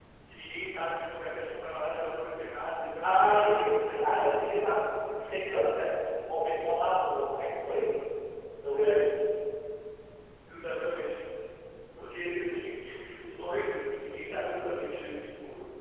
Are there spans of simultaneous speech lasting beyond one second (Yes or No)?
Yes